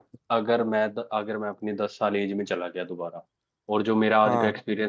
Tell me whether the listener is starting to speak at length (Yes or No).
No